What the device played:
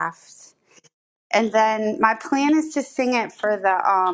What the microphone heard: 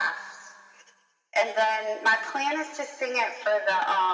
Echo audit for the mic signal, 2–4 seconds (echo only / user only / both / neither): echo only